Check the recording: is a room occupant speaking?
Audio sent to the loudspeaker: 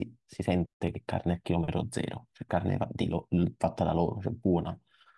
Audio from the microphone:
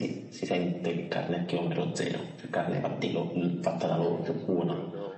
Yes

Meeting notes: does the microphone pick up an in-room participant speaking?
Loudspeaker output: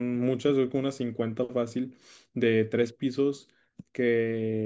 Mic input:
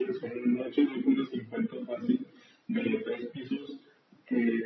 No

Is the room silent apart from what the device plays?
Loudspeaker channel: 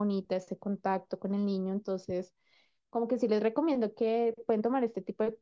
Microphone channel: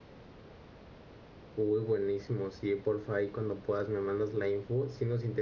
No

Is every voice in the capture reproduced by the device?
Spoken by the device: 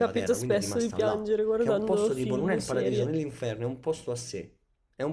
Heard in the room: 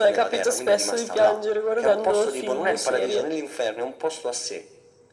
Yes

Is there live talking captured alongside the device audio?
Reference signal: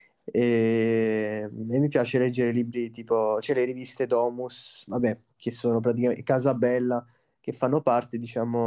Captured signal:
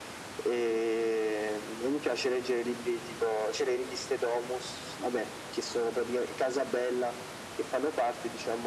No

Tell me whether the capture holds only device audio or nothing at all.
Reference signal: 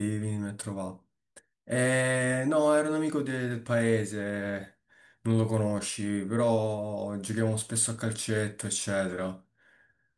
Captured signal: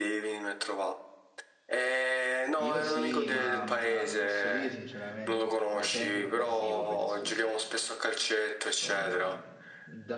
No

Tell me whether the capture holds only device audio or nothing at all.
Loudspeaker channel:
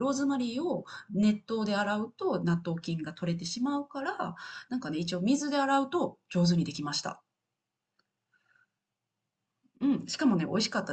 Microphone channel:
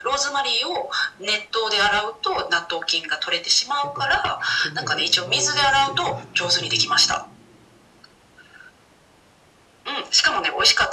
No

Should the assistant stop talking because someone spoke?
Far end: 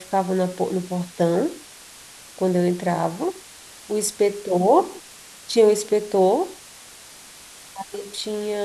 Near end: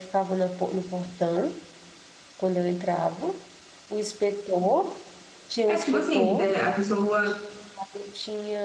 Yes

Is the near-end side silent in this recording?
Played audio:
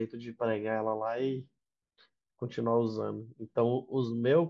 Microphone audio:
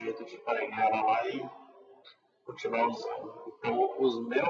Yes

